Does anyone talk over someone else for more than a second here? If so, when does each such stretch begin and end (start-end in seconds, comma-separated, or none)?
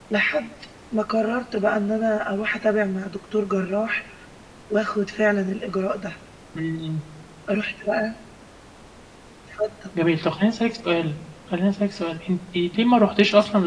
none